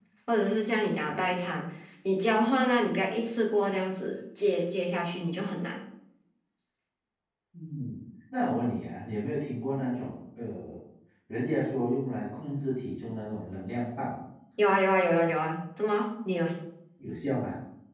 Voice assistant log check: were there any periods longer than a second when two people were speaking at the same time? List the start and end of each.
none

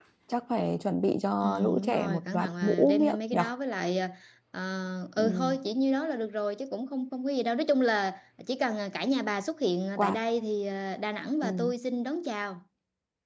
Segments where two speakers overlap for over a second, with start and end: 1.4-3.4

